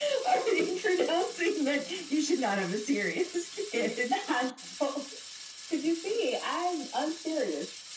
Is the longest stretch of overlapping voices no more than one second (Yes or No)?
Yes